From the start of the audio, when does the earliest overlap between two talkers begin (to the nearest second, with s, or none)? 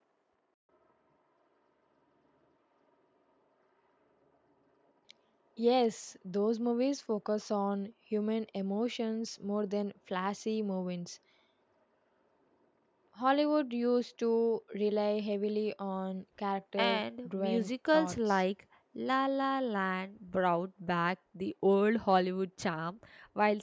17 s